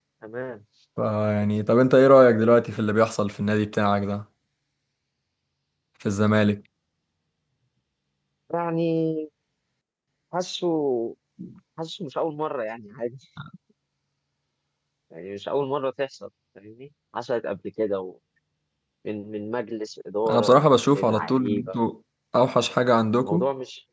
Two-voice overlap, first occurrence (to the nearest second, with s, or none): 20 s